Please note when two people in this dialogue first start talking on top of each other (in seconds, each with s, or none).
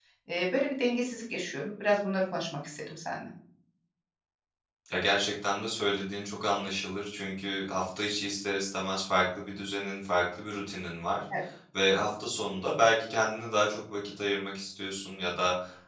none